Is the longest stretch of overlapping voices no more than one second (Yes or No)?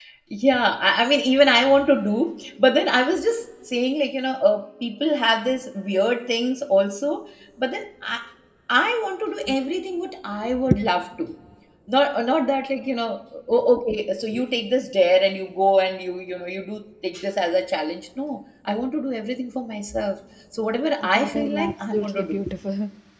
No